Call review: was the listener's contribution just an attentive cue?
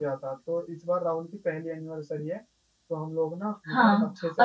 No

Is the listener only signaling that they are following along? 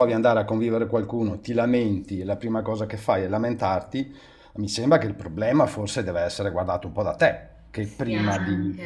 No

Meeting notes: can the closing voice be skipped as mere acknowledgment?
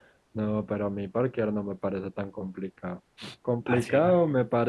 Yes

